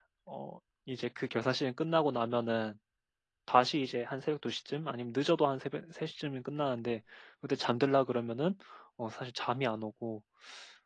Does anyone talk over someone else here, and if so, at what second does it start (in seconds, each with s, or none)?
none